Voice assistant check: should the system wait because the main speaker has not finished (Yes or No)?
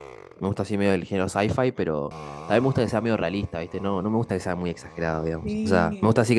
Yes